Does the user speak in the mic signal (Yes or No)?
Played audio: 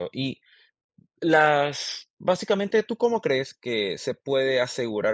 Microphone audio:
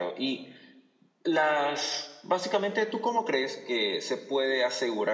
No